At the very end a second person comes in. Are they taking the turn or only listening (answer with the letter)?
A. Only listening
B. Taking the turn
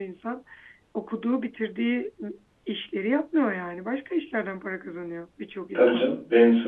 B